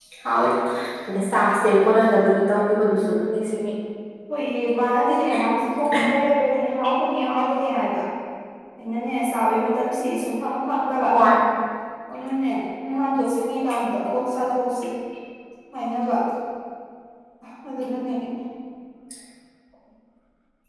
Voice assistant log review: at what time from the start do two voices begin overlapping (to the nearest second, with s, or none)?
none